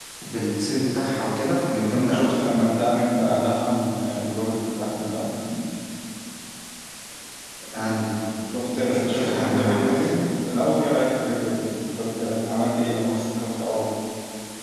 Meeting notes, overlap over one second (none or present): present